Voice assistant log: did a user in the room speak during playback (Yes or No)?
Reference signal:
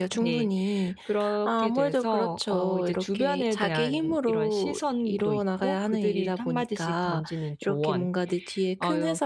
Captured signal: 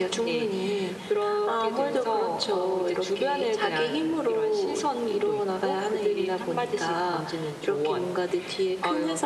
No